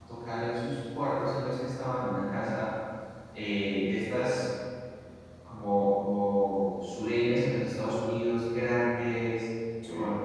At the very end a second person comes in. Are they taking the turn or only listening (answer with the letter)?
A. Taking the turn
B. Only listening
B